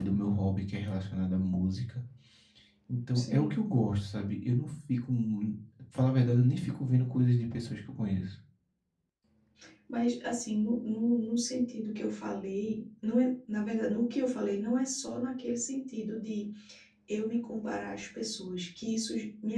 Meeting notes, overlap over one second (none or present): none